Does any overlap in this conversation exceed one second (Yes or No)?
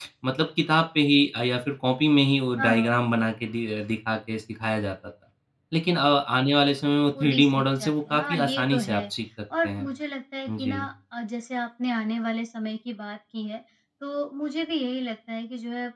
Yes